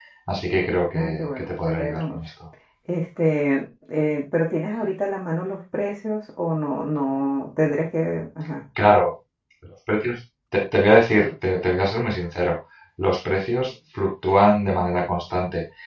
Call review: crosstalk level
present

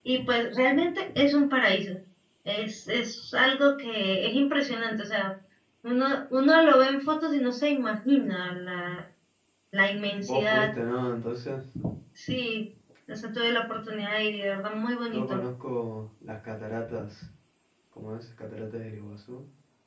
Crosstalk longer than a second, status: none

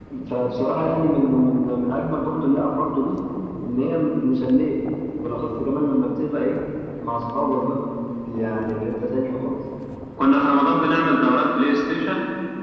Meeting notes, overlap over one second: none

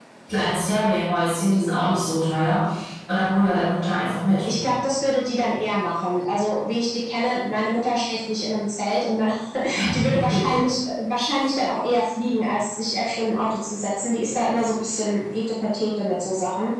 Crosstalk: none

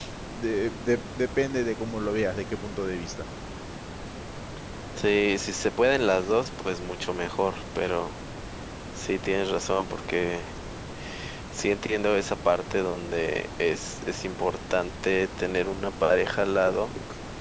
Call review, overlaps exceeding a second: none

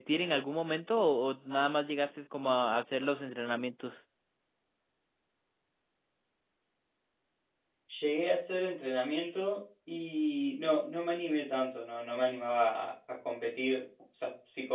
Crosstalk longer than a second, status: none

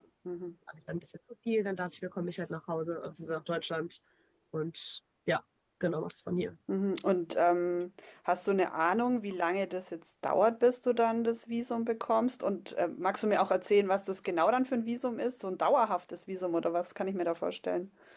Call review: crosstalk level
none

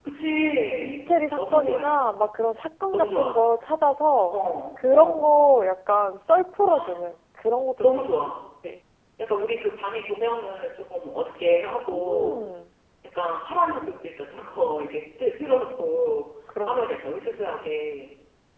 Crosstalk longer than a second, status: present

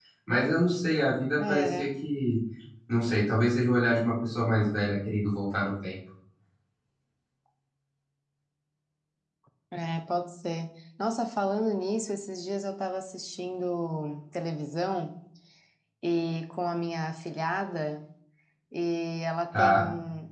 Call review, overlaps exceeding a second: none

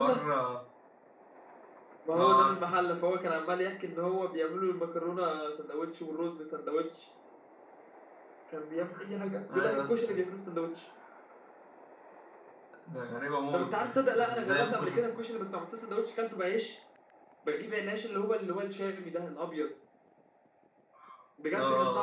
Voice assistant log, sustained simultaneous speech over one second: present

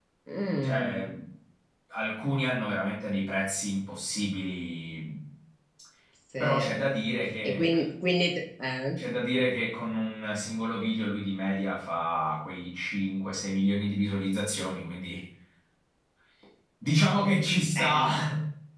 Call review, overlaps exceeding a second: none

